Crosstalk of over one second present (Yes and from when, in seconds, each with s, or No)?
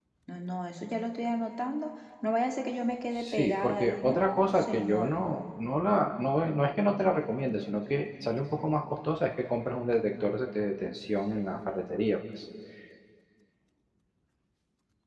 Yes, from 3.2 s